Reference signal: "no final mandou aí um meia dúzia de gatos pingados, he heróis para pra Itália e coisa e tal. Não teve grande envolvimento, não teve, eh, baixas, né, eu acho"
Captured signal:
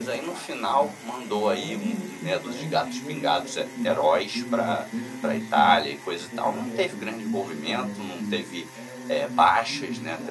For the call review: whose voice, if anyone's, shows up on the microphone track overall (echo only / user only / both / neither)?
both